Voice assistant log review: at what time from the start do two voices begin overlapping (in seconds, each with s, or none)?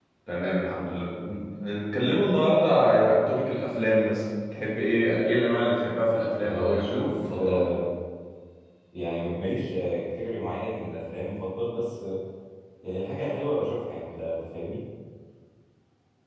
6.3 s